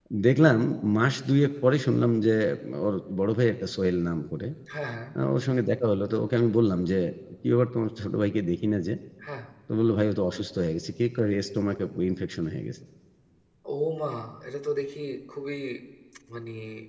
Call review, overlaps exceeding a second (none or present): none